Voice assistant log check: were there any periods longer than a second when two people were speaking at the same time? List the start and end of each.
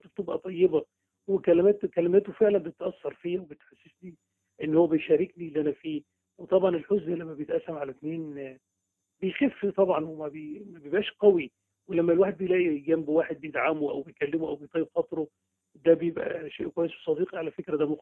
none

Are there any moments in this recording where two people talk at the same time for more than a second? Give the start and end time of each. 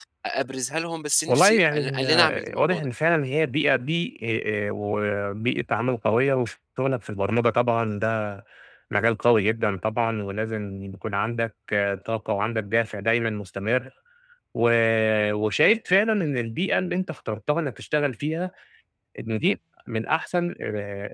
1.3-2.9

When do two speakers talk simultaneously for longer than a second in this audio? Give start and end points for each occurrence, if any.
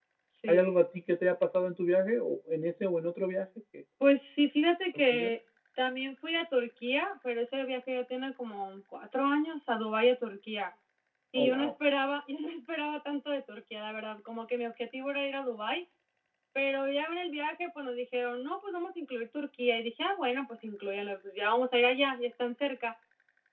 none

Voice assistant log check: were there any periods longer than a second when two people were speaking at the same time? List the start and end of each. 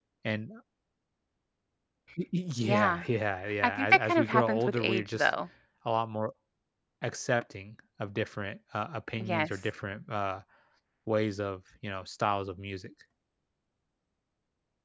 3.6-5.3

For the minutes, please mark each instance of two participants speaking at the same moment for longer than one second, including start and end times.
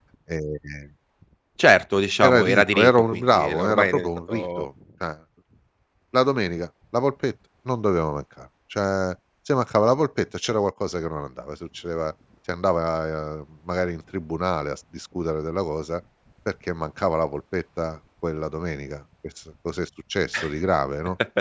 2.2-4.6

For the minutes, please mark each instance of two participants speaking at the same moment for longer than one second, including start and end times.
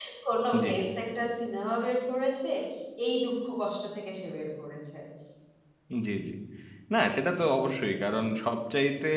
none

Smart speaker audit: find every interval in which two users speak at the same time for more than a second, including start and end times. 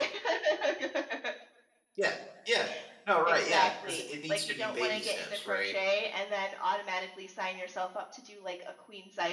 3.3-5.7

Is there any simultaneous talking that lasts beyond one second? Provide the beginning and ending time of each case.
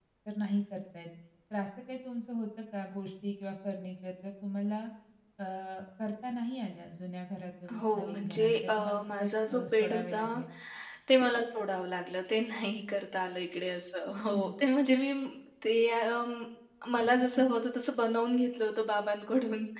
7.9-10.2

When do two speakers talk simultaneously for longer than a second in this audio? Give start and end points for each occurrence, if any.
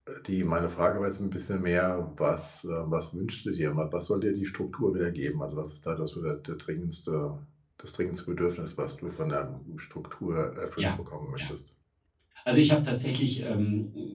none

